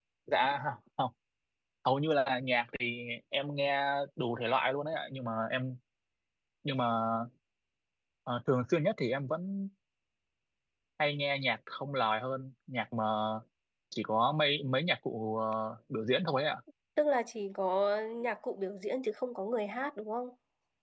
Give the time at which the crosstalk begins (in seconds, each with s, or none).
none